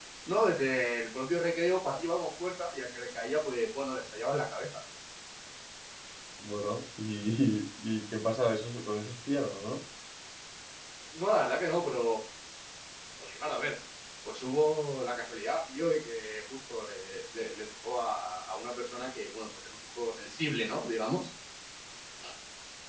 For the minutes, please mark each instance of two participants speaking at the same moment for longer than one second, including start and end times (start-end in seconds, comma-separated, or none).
none